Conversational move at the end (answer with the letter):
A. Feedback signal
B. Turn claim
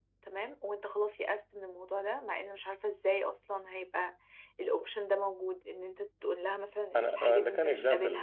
B